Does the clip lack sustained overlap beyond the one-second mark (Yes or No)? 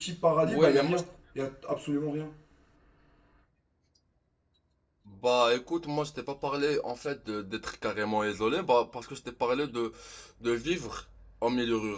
Yes